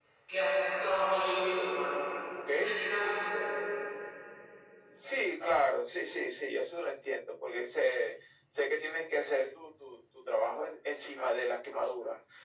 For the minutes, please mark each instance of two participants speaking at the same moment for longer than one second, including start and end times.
none

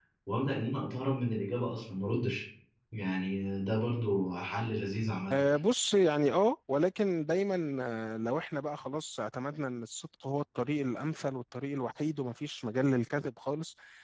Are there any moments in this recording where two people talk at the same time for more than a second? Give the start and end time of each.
none

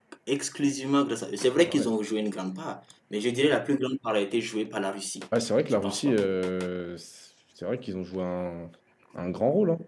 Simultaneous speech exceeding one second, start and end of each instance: none

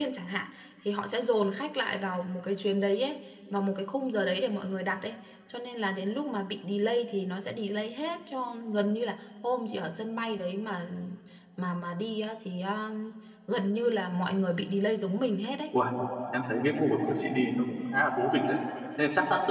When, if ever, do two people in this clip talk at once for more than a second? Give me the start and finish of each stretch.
none

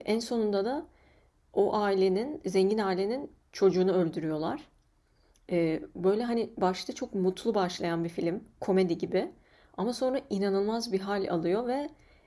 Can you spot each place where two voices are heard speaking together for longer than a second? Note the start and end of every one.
none

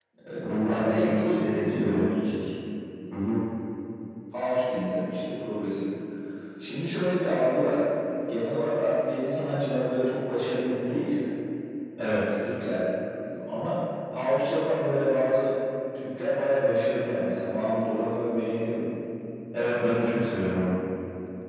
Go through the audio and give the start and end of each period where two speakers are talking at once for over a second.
0.7-2.1

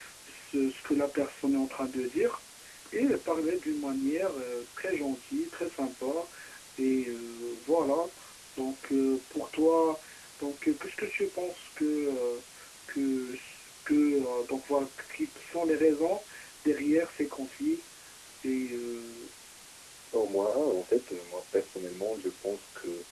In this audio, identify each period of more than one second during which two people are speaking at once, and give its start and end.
none

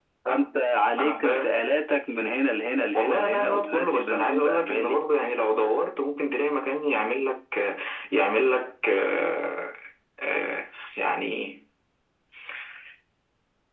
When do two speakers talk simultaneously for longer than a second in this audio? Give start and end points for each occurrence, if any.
2.9-5.0

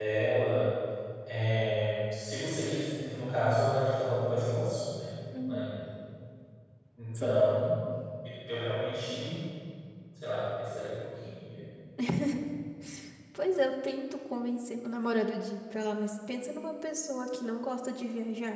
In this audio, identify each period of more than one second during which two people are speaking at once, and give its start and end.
none

